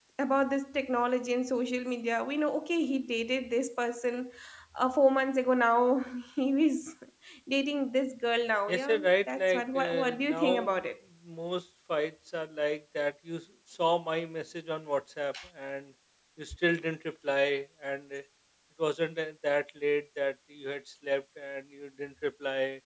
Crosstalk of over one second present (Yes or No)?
Yes